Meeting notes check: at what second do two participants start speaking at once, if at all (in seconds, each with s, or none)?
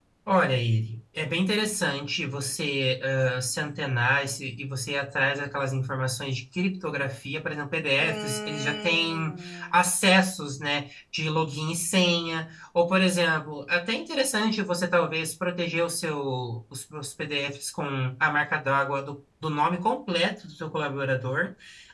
8.0 s